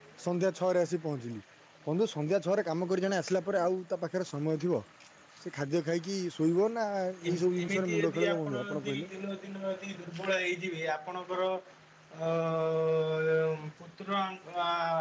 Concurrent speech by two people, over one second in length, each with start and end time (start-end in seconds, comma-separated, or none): 7.3-9.1